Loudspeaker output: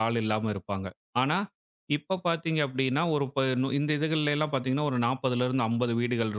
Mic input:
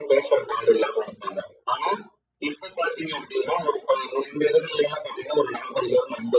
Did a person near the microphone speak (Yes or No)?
No